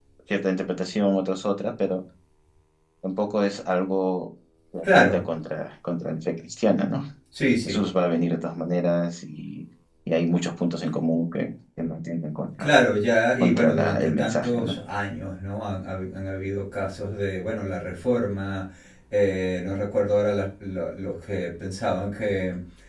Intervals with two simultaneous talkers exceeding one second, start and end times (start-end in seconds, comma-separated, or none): 13.4-14.7